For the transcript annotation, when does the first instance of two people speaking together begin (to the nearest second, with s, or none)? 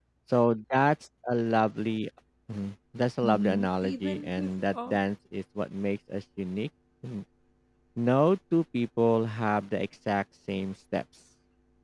3 s